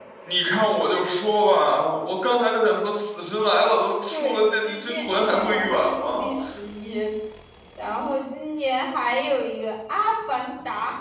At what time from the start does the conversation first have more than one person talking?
4.1 s

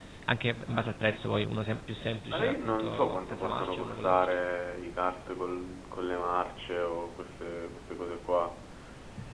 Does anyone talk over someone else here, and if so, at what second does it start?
2.3 s

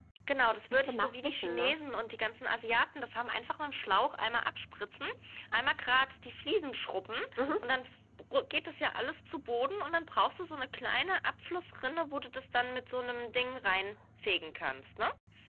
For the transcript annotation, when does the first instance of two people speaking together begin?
0.5 s

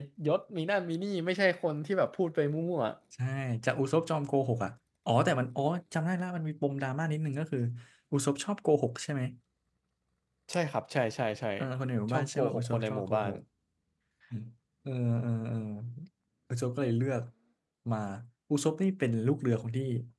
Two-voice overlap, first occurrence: 12.1 s

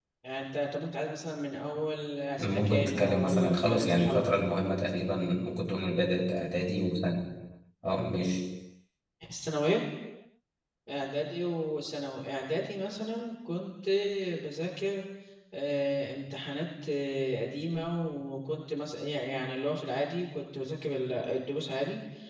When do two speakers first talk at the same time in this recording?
2.4 s

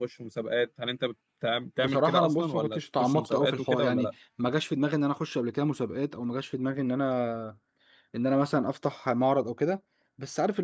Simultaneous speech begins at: 1.8 s

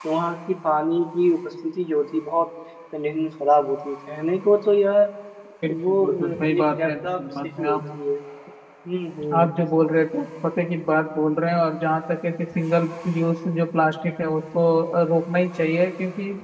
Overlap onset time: 5.7 s

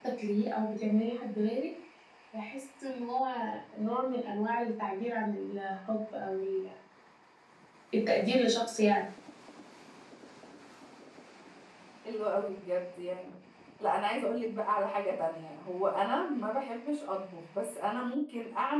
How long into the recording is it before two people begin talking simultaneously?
none

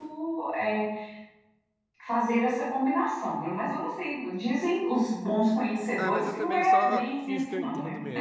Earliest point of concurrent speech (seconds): 6.0 s

